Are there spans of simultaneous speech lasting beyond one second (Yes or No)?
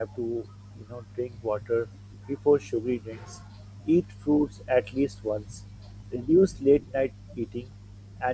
No